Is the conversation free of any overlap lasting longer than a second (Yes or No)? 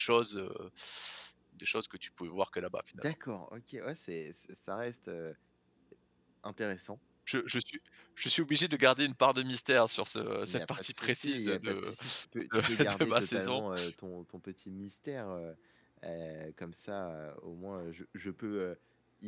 No